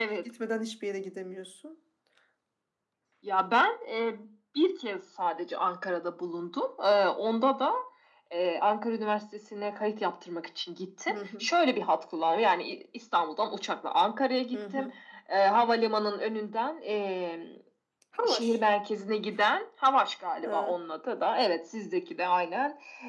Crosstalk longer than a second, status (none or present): none